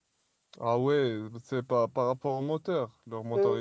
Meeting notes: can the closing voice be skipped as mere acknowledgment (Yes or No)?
No